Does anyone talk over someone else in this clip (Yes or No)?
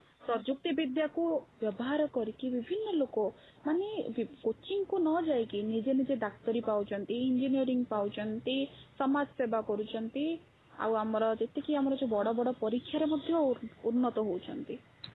No